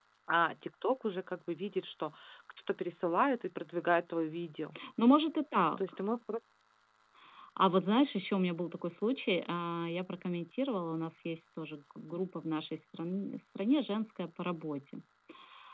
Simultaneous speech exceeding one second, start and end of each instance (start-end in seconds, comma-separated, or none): none